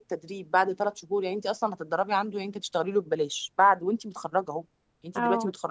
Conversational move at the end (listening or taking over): listening